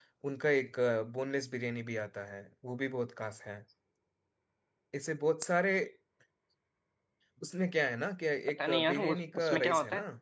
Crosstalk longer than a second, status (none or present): present